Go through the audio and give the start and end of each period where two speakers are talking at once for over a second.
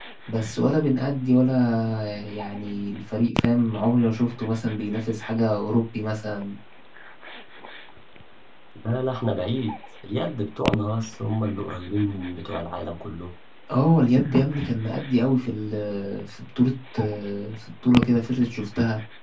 none

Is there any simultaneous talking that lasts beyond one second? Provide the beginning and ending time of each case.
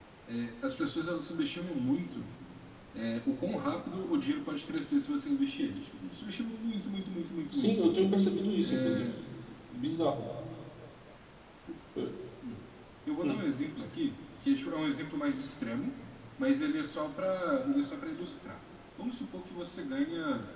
none

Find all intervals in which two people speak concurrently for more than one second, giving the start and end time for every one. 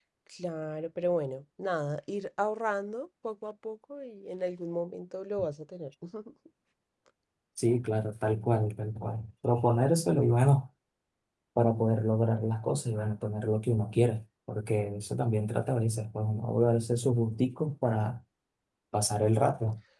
none

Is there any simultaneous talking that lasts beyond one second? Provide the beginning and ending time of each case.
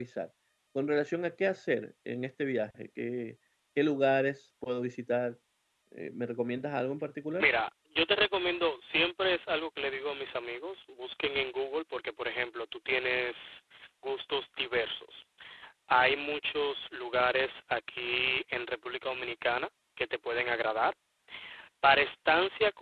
none

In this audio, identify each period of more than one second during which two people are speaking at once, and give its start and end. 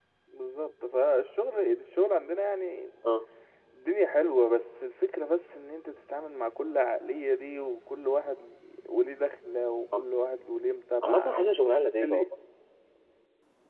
none

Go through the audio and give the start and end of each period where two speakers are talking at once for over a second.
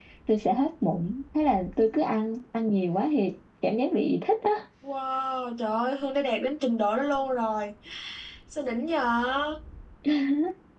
none

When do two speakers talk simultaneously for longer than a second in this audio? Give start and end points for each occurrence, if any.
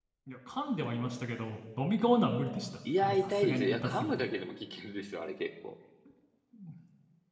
3.0-4.2

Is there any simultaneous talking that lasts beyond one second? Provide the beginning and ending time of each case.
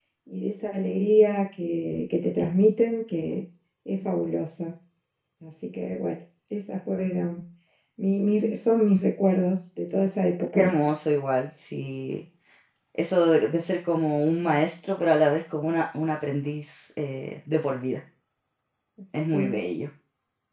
none

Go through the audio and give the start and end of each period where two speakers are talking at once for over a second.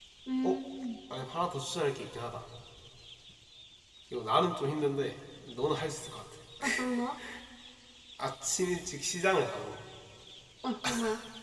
none

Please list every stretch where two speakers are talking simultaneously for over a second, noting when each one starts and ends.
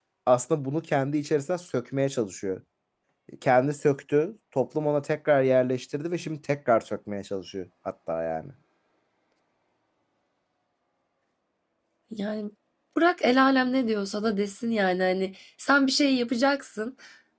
none

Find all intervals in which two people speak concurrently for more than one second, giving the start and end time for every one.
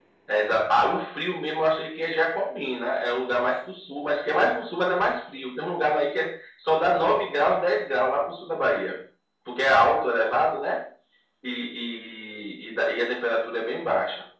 none

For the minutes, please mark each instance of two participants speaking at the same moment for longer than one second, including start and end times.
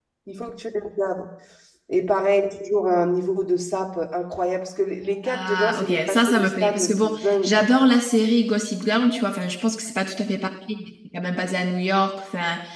5.3-7.7

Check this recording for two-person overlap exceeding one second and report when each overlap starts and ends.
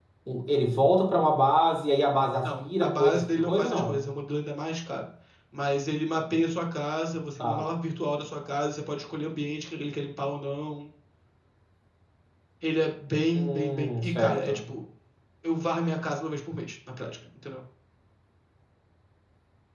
2.4-4.0, 13.3-14.6

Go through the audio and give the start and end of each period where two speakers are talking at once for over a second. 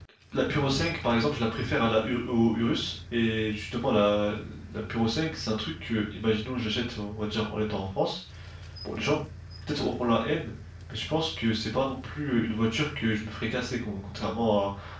none

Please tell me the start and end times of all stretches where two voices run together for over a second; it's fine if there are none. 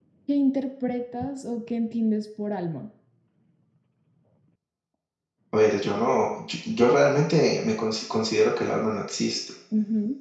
none

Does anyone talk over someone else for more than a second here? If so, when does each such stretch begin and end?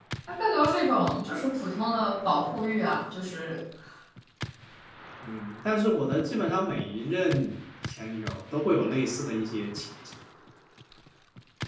none

